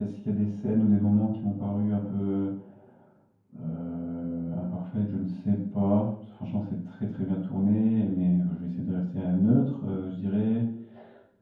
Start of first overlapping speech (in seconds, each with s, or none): none